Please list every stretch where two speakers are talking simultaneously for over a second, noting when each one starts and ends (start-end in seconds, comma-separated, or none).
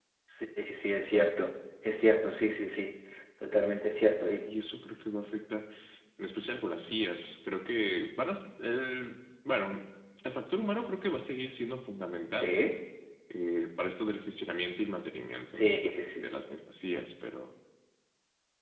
none